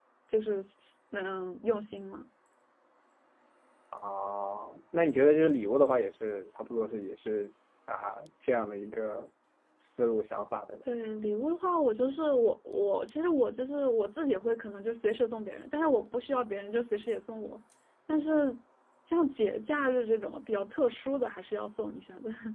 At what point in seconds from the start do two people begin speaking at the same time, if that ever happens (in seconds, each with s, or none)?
none